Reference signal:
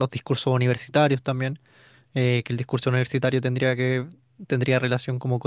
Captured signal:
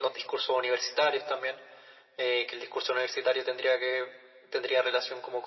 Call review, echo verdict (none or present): present